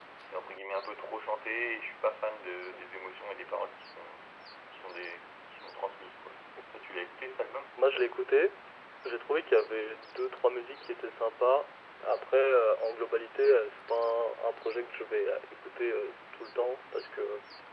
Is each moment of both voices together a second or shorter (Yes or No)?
Yes